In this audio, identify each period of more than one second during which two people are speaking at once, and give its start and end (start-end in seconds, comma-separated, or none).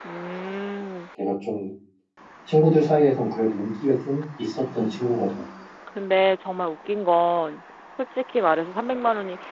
none